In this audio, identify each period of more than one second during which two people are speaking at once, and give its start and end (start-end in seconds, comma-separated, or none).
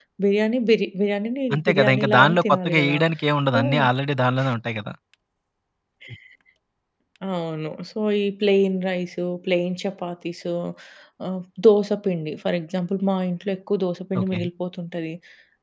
1.5-3.0